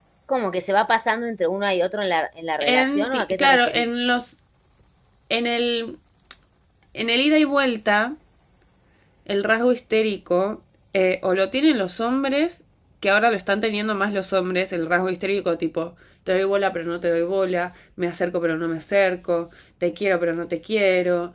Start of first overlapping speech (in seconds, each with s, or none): 2.6 s